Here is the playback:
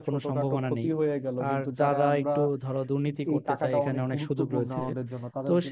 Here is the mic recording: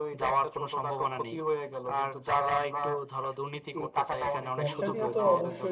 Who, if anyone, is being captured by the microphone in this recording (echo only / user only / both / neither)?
both